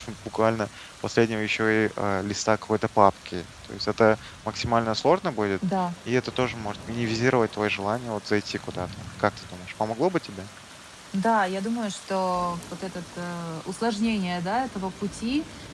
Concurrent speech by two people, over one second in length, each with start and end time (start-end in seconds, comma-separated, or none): none